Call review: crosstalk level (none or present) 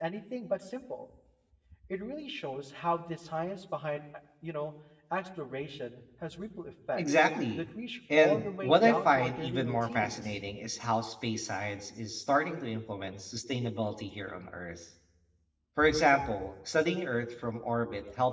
present